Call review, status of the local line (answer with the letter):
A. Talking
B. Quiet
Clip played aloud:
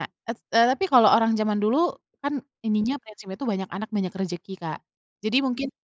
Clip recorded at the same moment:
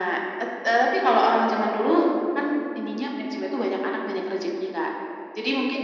B